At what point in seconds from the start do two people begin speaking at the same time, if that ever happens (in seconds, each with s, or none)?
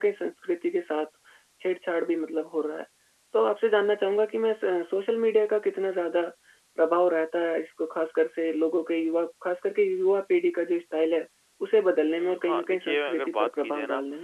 12.1 s